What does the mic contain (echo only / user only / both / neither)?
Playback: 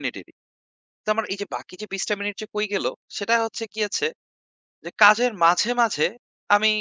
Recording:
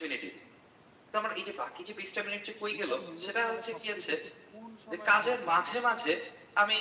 both